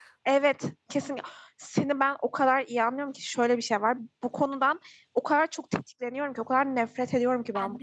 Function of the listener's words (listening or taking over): listening